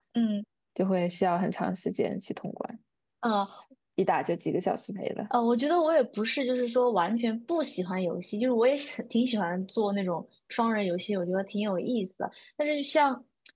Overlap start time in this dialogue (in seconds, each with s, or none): none